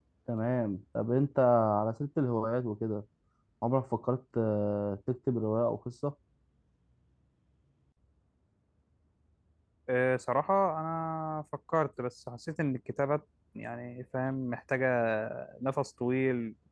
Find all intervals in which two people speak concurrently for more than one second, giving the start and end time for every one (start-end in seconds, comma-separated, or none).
none